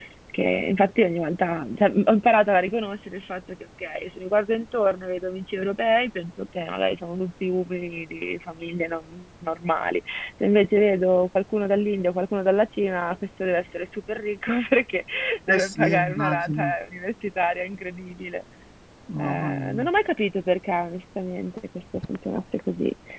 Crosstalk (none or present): present